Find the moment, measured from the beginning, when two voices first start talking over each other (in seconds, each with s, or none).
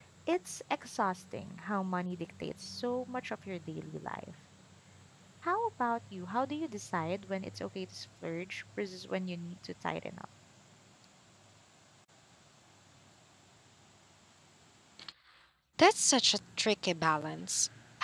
none